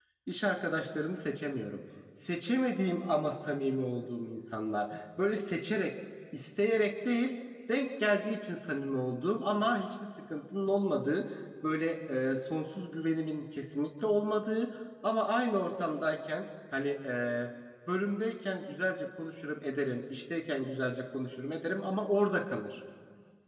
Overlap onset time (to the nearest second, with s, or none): none